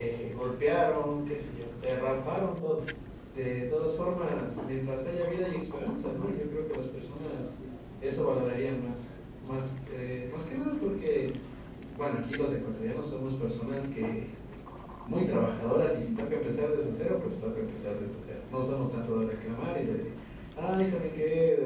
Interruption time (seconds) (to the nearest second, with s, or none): none